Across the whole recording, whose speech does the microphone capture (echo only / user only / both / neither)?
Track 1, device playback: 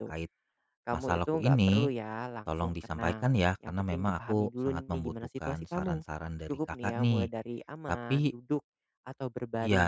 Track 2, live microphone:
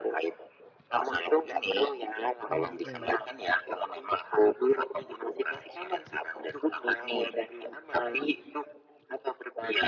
both